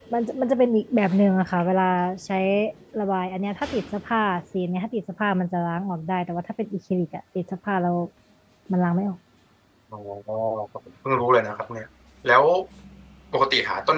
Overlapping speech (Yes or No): No